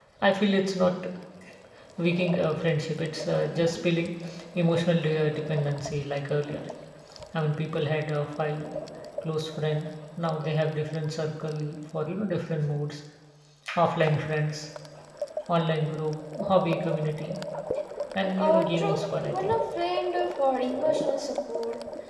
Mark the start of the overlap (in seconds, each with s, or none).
18.4 s